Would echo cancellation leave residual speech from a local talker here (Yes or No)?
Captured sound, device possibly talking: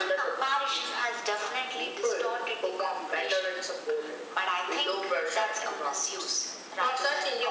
No